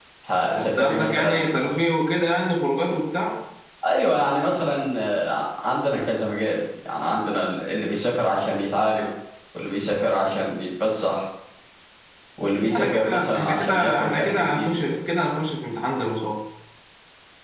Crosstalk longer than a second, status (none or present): present